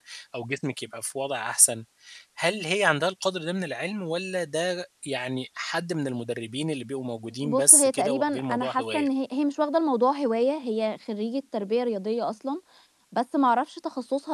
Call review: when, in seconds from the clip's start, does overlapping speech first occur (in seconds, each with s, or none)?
7.4 s